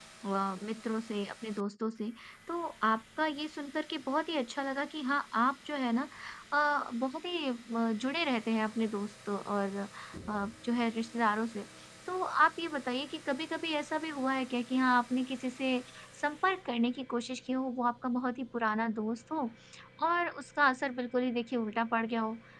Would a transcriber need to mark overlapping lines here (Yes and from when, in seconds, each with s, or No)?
No